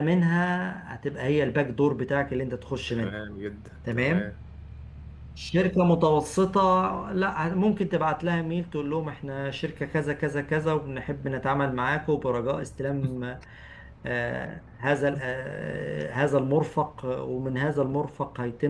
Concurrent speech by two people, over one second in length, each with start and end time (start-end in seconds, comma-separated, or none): none